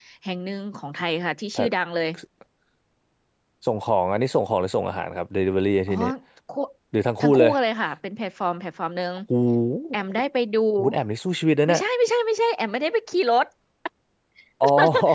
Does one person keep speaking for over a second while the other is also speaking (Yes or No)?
No